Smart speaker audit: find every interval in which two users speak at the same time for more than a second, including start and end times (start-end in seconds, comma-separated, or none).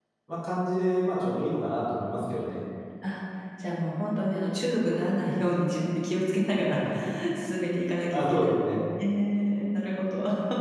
none